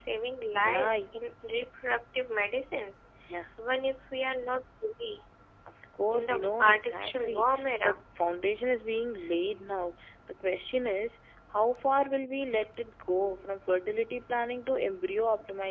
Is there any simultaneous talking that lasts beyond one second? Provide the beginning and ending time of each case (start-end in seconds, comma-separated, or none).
6.1-8.0